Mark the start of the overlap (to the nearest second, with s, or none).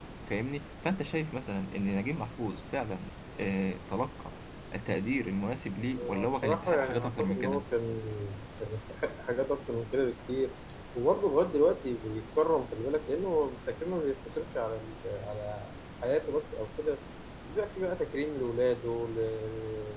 6 s